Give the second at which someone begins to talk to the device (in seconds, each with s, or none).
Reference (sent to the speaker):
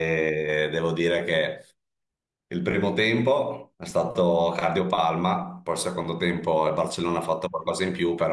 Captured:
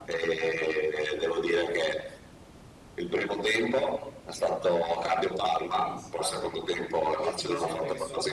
5.8 s